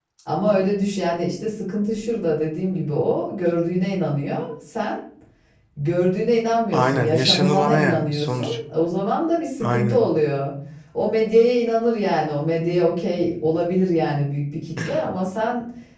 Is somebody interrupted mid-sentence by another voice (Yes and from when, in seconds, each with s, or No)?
Yes, from 6.7 s